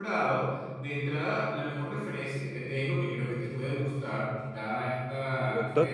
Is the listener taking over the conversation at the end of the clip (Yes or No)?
No